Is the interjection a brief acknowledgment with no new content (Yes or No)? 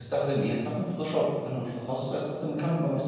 No